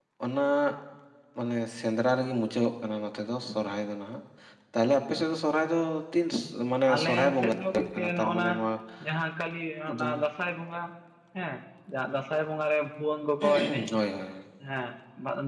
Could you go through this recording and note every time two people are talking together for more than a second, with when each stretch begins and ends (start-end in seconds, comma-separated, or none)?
6.9-8.5